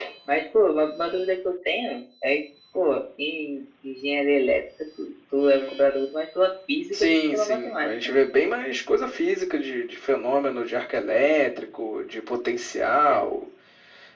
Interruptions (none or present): present